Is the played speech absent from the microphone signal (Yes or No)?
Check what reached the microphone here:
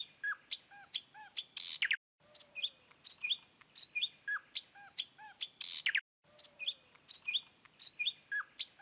Yes